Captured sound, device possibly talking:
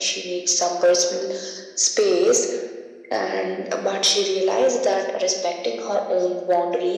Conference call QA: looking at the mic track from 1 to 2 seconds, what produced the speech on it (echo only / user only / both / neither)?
echo only